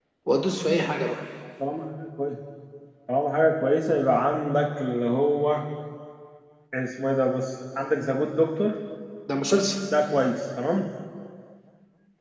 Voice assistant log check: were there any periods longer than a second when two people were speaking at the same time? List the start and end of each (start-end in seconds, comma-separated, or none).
none